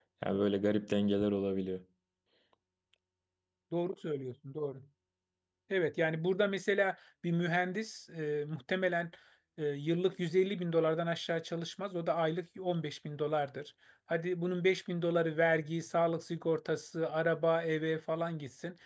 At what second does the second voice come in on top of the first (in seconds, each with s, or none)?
none